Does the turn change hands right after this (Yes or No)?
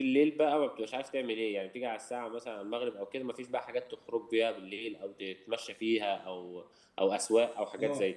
Yes